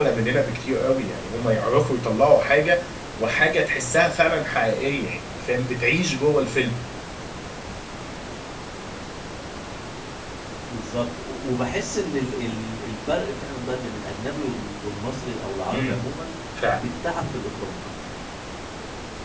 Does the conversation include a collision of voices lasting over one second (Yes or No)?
No